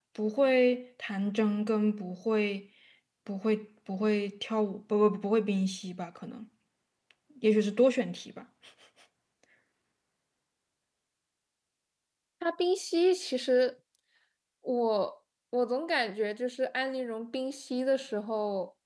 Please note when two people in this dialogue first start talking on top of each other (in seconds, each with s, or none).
none